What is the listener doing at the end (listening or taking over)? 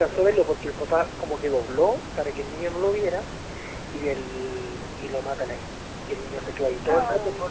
listening